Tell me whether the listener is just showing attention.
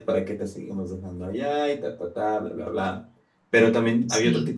Yes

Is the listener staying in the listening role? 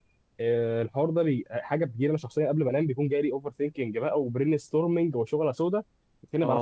No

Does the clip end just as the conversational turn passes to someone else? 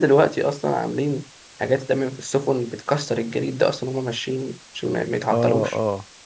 Yes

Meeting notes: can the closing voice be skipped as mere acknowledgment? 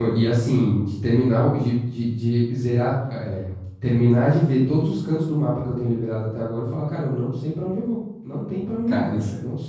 No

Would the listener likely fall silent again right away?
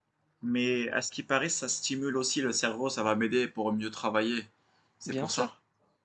No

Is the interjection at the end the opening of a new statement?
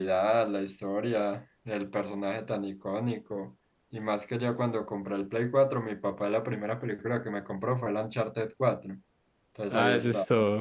Yes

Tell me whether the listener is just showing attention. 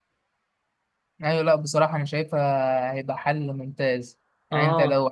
Yes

